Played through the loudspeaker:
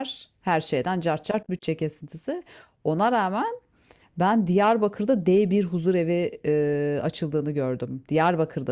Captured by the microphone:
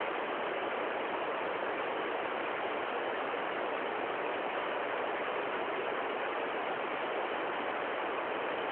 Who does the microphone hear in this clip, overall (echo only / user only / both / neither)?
neither